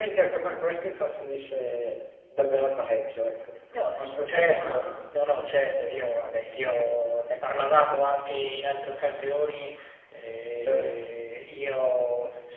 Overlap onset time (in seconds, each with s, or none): 3.9 s